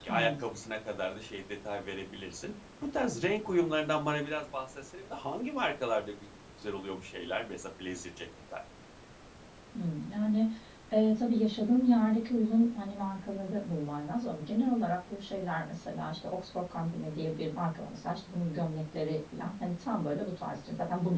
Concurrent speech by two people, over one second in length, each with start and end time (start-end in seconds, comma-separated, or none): none